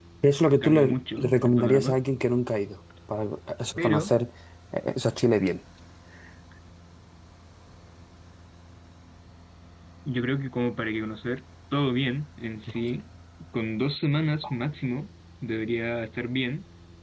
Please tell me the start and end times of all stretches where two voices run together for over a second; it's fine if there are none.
0.6-2.0

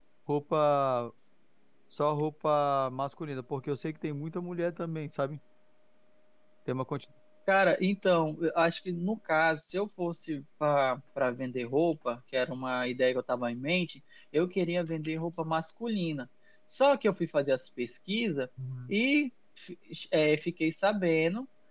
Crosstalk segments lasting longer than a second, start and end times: none

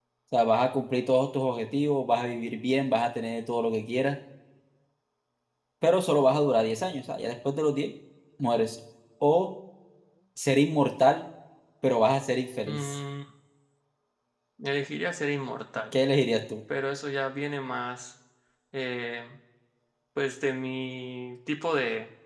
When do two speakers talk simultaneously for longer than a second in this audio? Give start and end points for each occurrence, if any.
none

